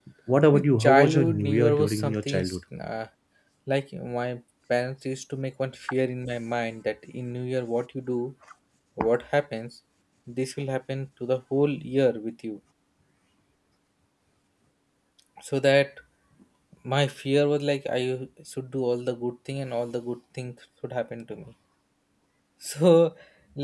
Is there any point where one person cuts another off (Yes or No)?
Yes